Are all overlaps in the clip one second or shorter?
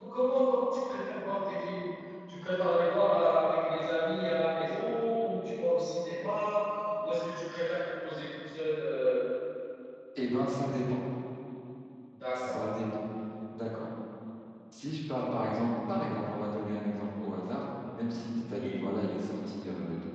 Yes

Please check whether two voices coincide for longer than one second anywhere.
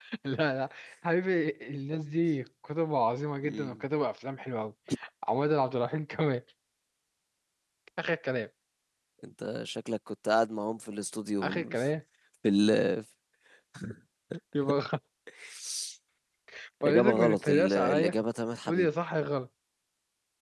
Yes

